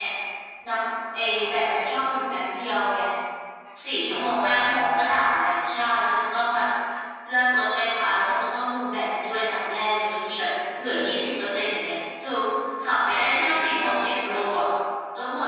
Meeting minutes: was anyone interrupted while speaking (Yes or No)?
Yes